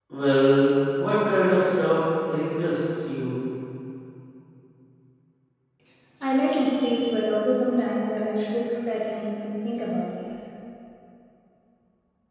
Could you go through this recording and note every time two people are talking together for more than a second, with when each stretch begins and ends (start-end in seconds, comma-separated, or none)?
none